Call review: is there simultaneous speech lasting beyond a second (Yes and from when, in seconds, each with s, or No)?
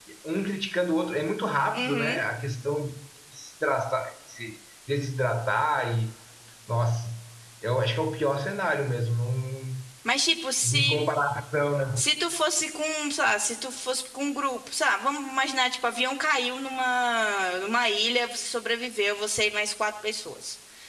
No